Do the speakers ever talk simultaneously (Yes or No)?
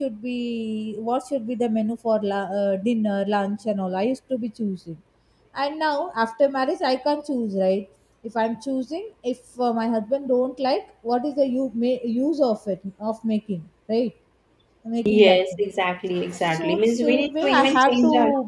Yes